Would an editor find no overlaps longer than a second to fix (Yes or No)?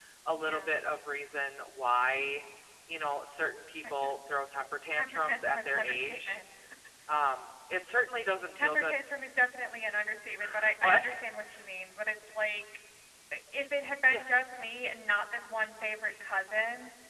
No